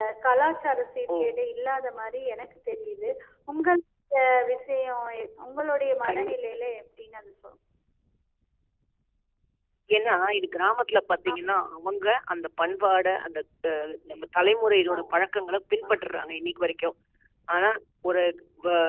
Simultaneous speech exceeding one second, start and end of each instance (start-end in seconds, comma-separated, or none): none